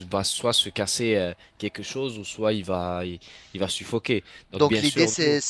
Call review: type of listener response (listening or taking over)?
taking over